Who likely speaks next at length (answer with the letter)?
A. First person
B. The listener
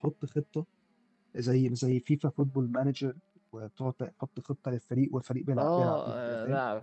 B